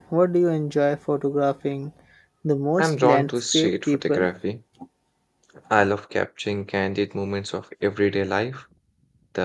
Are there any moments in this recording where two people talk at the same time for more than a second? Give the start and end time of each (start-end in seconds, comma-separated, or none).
2.8-4.3